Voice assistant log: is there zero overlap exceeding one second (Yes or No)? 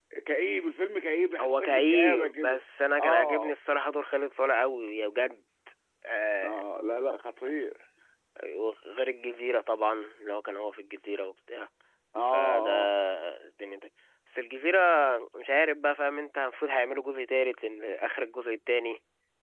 No